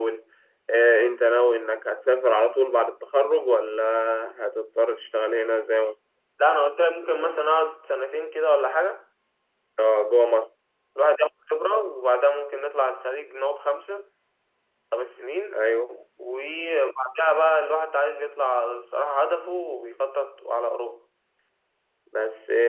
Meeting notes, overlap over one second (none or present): none